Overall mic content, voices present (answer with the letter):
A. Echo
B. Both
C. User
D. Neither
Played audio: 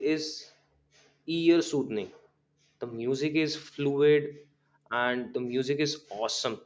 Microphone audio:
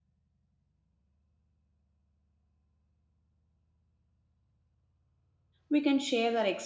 C